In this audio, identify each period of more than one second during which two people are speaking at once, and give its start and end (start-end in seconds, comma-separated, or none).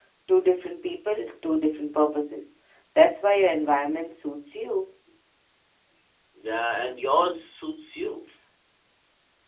none